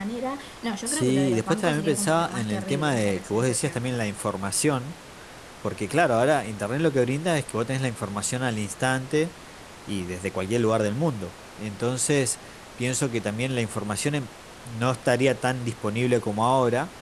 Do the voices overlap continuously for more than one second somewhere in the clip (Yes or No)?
Yes